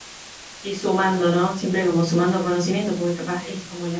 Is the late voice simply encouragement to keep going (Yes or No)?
Yes